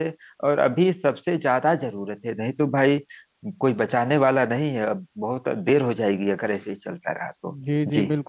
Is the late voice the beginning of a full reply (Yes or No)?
Yes